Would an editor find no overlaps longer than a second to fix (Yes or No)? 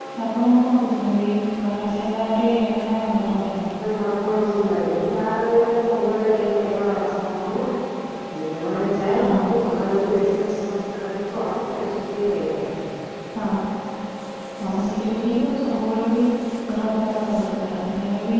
Yes